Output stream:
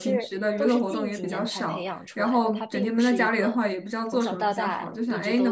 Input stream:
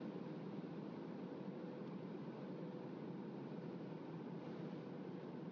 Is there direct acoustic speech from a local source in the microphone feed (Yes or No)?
No